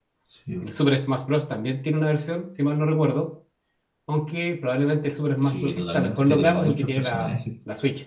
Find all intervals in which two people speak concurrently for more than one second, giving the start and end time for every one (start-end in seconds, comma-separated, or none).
5.4-7.3